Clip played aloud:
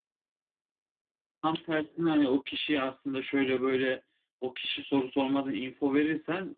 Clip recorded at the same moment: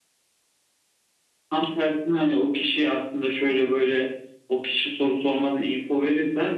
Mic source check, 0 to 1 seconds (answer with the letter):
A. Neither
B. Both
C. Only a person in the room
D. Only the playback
A